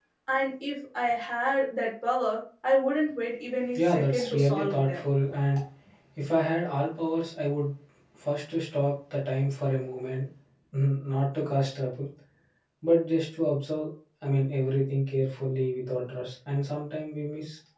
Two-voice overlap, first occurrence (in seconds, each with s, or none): 3.8 s